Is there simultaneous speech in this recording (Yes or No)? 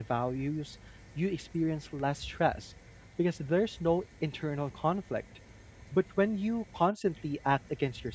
No